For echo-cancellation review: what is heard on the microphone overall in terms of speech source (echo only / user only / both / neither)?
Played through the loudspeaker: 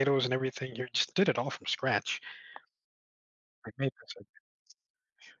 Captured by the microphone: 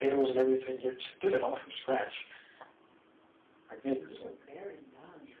both